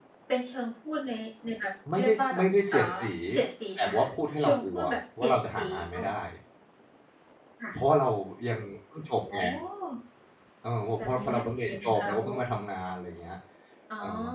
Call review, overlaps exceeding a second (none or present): present